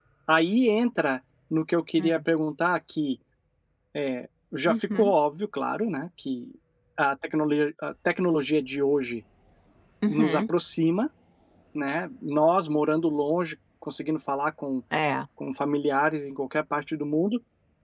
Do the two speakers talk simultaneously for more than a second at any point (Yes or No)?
No